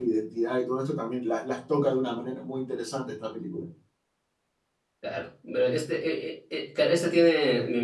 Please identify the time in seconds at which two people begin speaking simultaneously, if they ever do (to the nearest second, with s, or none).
none